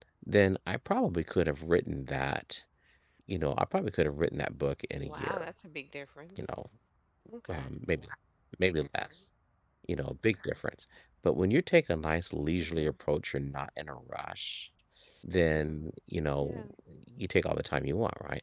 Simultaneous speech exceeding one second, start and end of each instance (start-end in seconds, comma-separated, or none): none